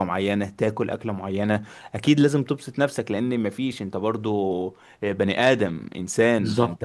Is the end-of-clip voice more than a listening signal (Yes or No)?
No